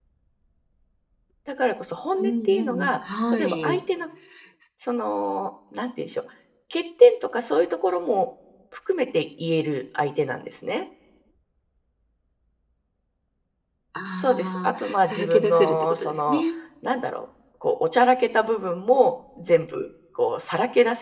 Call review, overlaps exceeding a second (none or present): present